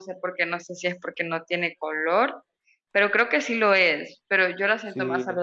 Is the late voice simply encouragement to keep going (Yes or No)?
Yes